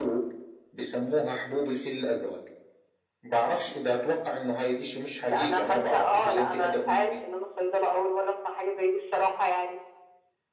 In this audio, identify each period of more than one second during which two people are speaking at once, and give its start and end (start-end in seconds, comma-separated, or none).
5.2-7.2